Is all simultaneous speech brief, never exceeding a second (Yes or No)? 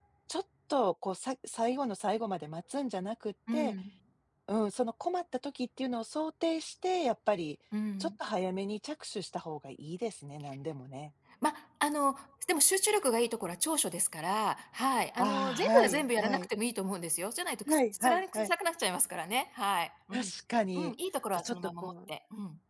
No